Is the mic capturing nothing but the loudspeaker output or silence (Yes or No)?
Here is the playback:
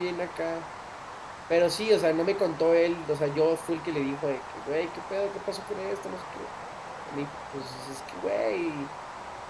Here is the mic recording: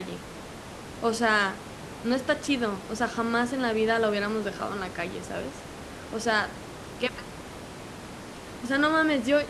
No